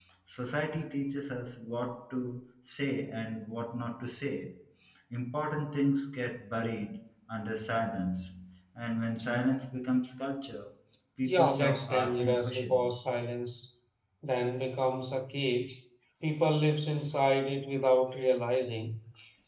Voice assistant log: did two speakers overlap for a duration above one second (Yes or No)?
Yes